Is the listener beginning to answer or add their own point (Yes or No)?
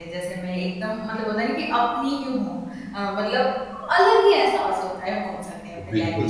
Yes